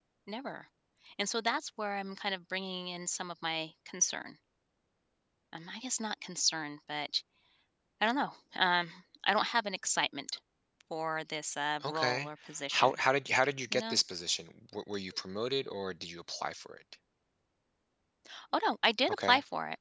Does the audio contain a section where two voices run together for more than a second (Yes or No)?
No